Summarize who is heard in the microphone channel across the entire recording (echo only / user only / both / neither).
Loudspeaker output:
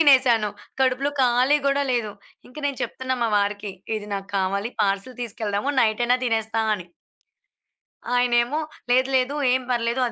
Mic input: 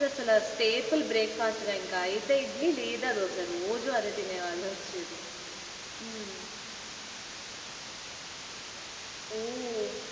user only